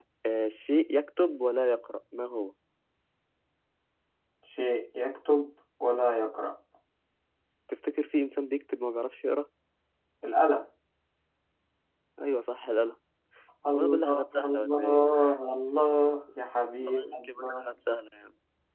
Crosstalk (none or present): present